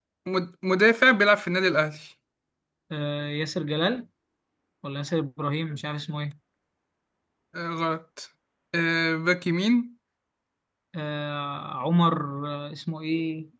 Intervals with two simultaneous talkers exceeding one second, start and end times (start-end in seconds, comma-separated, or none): none